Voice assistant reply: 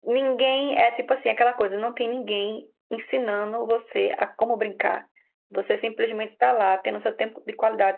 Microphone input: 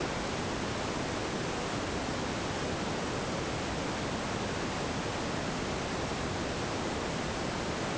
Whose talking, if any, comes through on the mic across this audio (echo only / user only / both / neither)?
neither